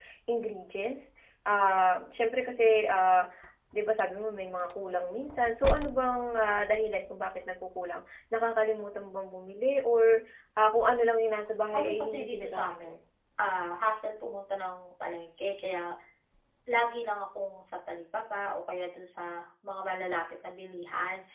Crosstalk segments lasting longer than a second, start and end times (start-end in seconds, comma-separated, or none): 11.7-12.9